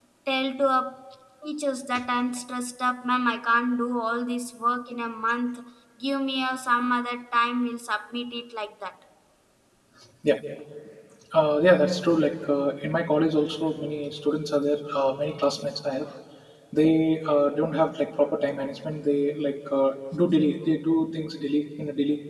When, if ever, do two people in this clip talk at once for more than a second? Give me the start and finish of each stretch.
none

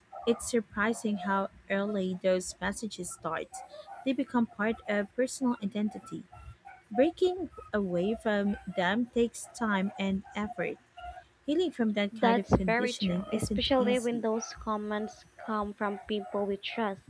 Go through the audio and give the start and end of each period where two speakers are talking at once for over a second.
12.2-14.2

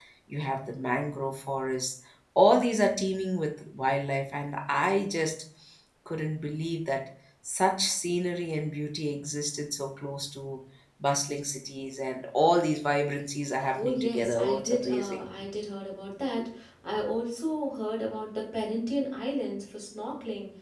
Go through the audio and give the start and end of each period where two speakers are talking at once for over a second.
13.7-15.2

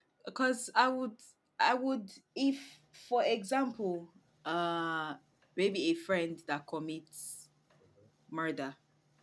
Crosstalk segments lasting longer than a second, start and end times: none

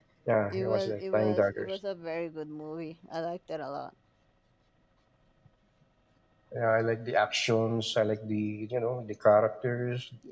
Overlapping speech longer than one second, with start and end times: 0.5-1.8

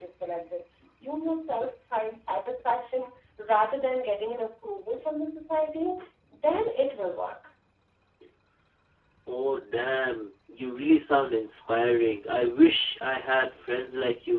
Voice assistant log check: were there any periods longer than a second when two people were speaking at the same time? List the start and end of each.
none

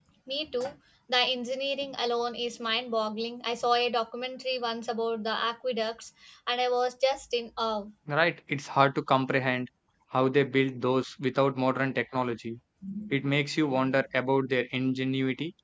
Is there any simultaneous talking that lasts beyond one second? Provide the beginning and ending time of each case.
none

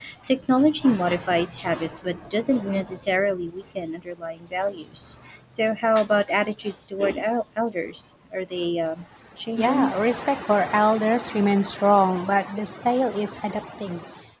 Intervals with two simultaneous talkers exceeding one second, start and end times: none

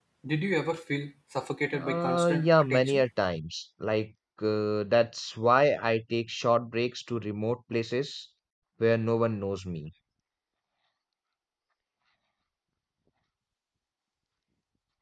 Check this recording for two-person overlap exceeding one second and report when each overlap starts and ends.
1.7-3.0

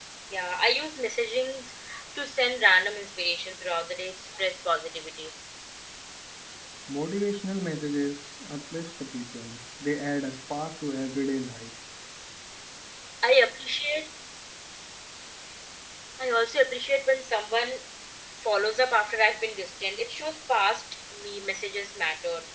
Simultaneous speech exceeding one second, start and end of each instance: none

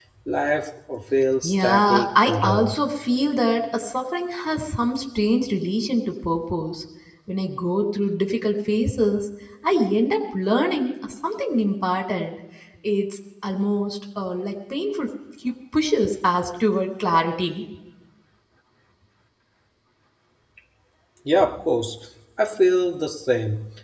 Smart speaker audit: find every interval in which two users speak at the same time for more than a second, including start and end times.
1.4-2.8

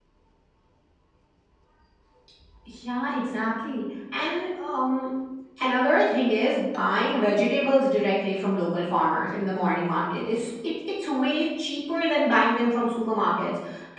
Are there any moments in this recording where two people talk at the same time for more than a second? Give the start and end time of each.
none

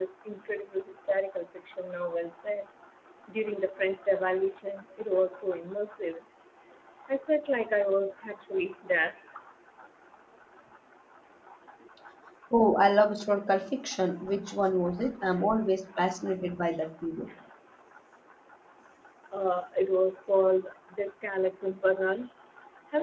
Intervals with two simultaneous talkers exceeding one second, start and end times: none

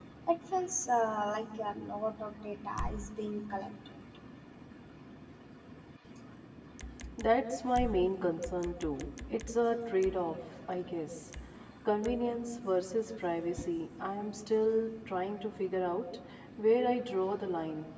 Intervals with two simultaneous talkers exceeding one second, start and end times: none

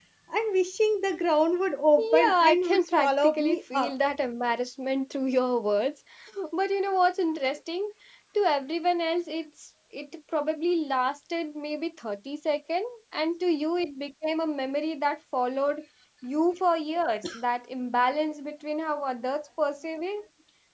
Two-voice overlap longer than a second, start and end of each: 2.0-3.9

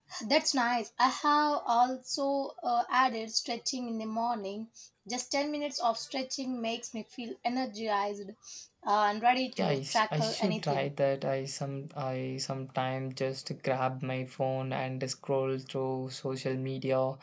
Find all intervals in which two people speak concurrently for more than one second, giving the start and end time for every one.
9.6-10.9

